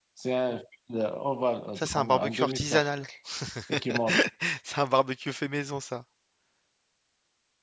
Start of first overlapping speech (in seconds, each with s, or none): 1.8 s